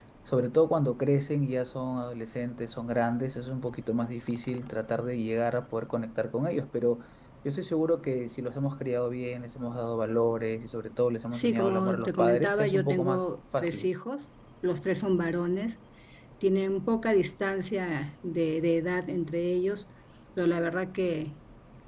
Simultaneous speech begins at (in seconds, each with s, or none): 11.3 s